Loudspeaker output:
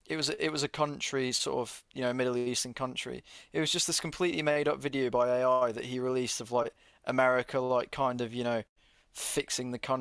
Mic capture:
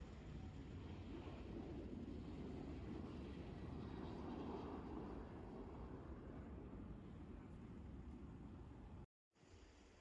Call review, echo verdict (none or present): none